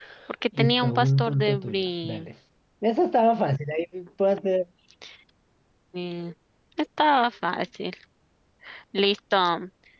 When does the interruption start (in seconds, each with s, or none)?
0.6 s